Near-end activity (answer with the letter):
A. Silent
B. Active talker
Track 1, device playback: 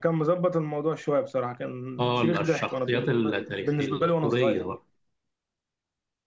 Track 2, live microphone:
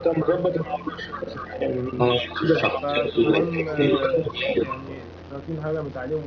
B